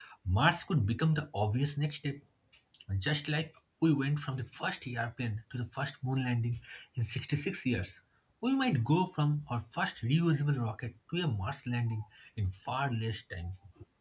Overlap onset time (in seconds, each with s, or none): none